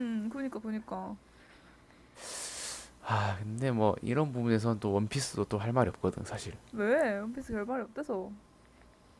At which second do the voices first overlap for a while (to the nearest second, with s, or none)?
none